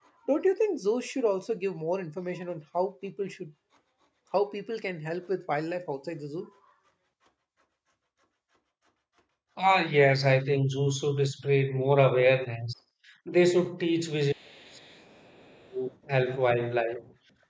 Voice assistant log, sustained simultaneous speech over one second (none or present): none